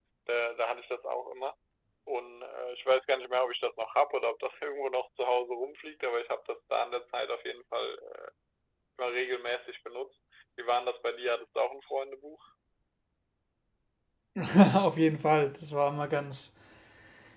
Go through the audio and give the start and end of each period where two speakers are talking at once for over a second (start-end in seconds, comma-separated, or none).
none